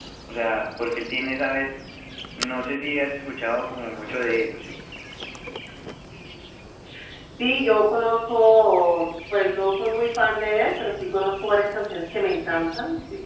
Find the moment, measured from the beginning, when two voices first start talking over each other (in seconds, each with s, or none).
none